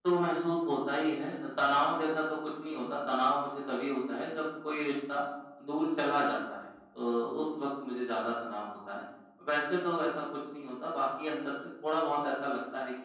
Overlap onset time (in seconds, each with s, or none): none